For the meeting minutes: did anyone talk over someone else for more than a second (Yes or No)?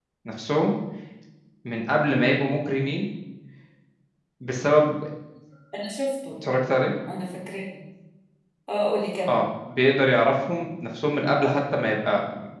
No